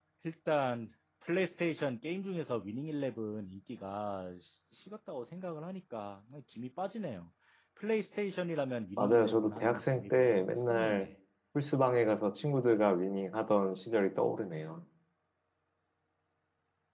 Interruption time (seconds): 9.0 s

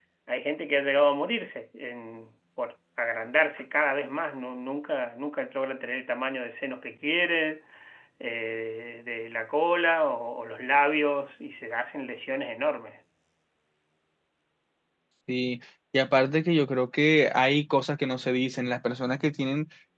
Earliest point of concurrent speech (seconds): none

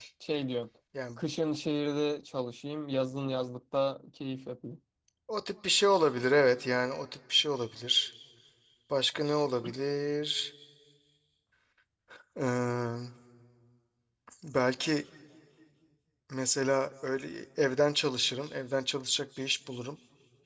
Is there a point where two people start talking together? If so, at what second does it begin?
none

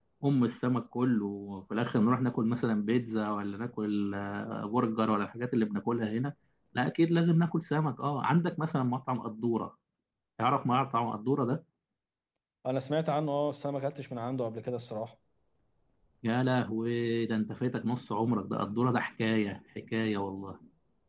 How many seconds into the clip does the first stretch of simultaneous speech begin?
none

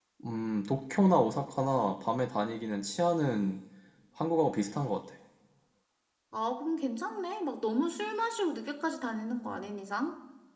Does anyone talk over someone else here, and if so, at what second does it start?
none

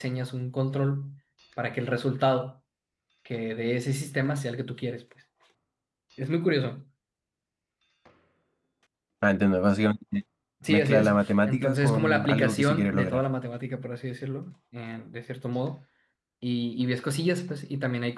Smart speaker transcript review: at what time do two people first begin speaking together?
10.7 s

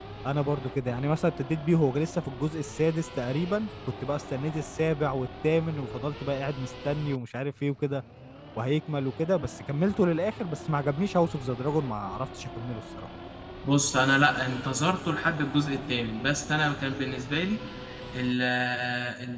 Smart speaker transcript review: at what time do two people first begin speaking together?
none

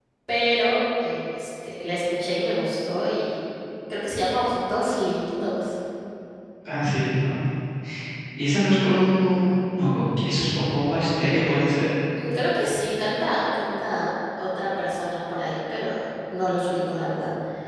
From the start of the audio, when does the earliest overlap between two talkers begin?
none

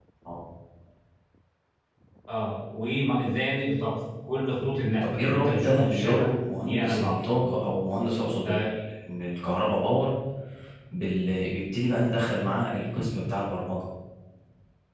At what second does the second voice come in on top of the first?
5.0 s

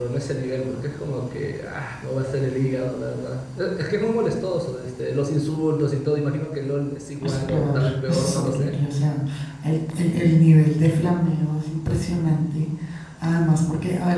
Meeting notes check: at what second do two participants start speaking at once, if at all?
7.2 s

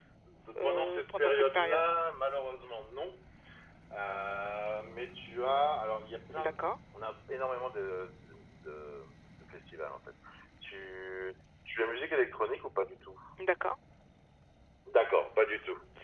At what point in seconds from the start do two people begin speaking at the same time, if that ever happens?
0.6 s

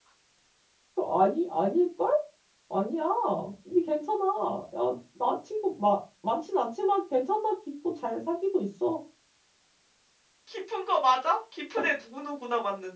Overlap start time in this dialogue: none

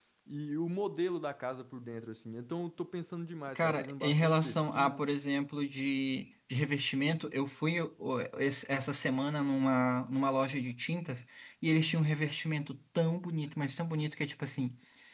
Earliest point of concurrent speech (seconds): 3.6 s

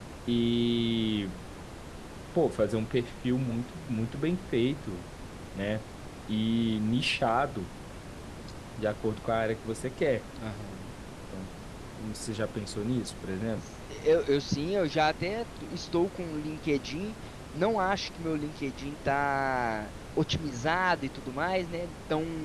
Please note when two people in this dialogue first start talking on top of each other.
none

